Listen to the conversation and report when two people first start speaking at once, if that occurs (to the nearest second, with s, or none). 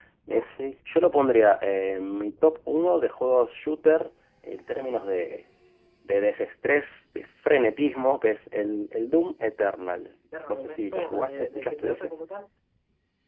10 s